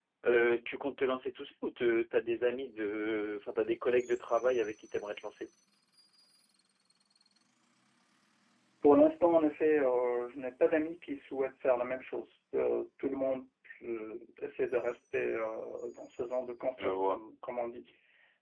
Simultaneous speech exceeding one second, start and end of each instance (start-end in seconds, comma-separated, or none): none